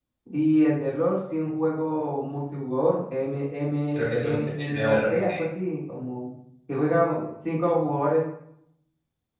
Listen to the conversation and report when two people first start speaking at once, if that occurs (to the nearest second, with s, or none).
4 s